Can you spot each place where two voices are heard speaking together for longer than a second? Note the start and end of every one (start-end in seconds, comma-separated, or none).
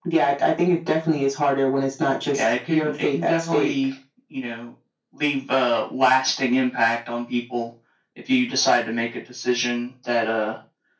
2.3-3.7